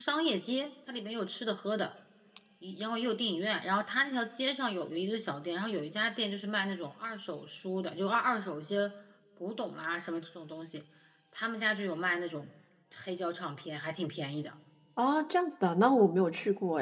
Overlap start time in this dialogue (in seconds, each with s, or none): none